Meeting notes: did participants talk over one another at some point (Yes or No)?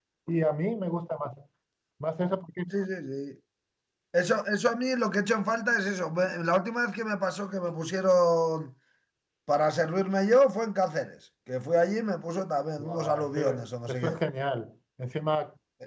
Yes